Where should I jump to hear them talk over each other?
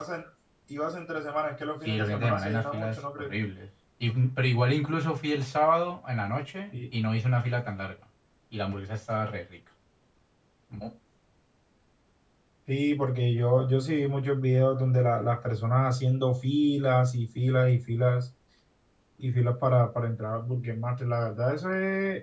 1.8 s

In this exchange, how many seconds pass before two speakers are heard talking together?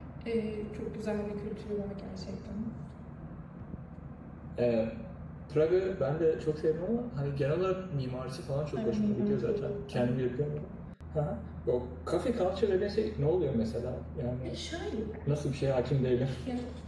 8.8 s

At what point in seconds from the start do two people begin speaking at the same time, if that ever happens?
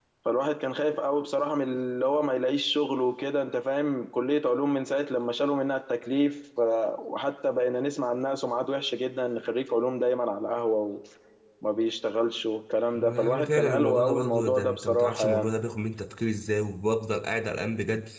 12.9 s

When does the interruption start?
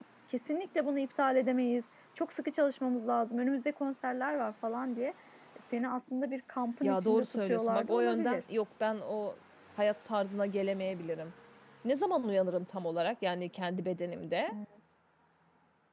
6.8 s

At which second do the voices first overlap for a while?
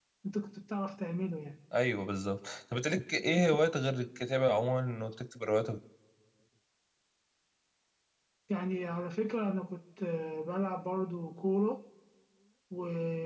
none

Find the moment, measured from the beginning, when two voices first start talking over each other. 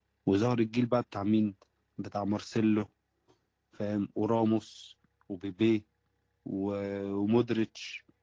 none

